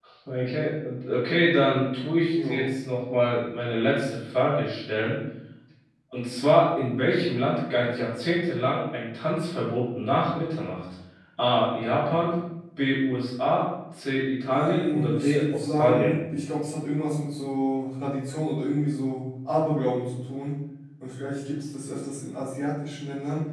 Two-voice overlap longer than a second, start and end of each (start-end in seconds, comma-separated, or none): 14.5-16.1